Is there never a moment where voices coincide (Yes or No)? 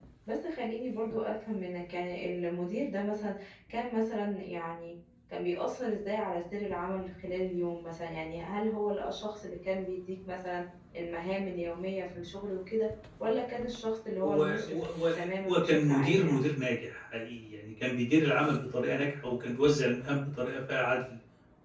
No